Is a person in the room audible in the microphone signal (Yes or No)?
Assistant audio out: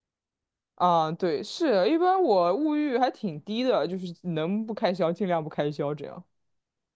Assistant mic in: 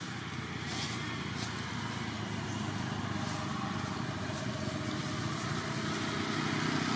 No